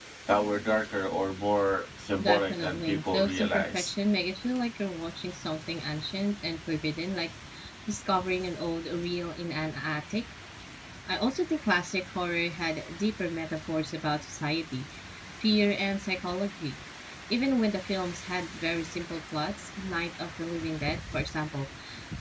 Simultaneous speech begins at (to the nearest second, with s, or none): 2 s